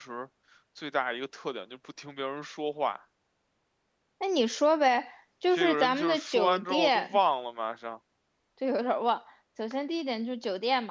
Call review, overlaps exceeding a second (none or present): present